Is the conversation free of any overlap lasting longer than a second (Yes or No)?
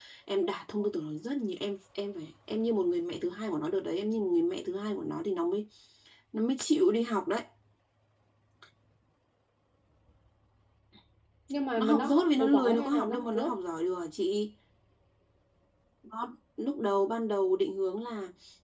No